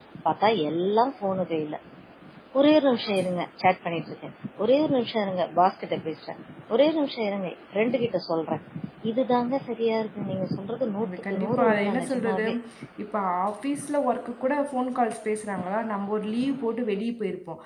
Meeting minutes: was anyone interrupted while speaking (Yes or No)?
Yes